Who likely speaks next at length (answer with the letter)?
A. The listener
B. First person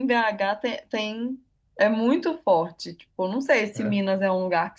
B